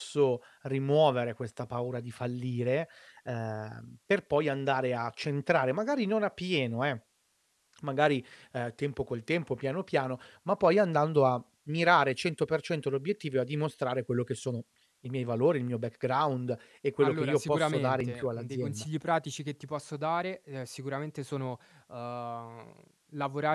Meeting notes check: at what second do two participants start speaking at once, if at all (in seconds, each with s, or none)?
17.0 s